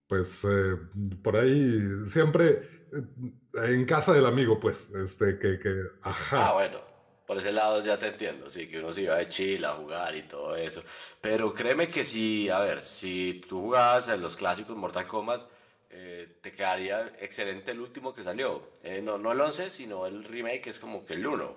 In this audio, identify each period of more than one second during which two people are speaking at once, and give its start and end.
none

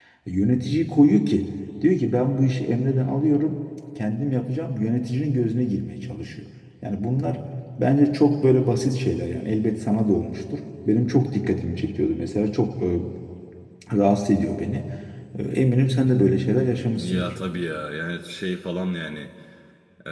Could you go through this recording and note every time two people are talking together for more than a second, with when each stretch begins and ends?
none

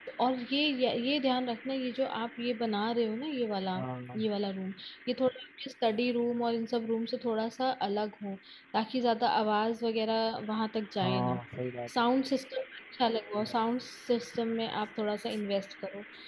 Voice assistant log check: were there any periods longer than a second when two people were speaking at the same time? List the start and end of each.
none

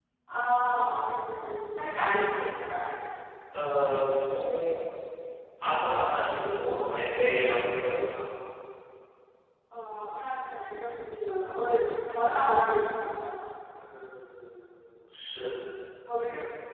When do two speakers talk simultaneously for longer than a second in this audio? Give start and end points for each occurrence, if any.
none

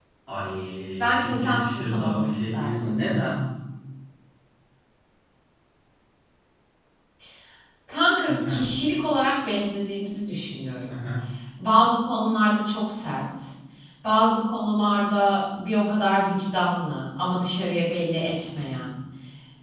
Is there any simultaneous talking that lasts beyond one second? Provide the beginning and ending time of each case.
1.0-3.0

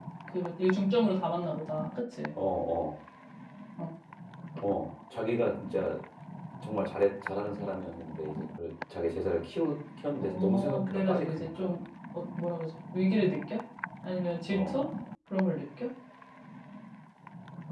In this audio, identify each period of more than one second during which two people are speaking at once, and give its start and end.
10.2-11.8

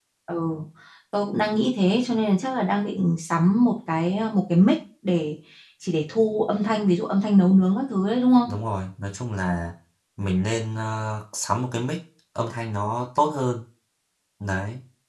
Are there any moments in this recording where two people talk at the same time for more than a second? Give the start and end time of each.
none

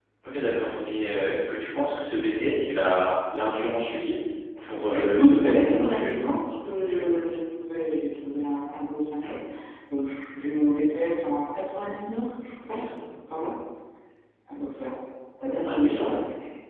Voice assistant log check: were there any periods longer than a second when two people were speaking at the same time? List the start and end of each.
4.9-6.2

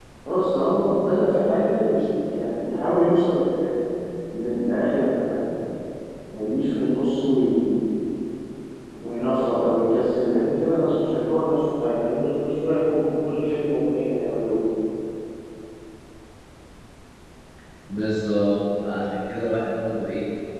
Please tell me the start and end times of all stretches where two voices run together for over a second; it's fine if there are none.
none

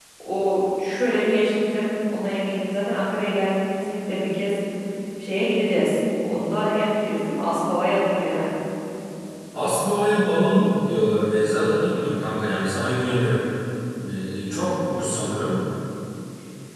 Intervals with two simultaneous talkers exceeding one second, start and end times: none

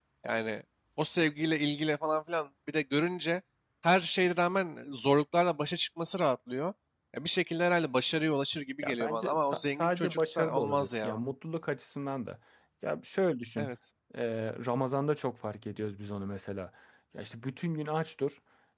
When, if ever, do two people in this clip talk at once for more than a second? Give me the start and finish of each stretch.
8.8-11.2

